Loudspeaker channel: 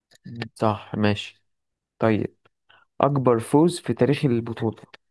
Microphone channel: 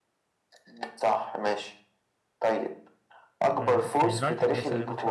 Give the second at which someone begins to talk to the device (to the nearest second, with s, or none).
4 s